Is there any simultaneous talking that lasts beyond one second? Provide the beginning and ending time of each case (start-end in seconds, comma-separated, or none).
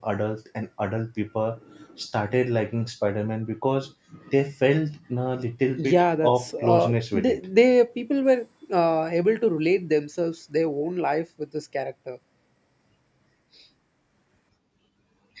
5.8-7.4